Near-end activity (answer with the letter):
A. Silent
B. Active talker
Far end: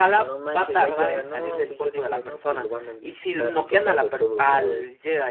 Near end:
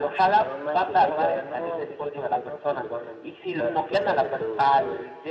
A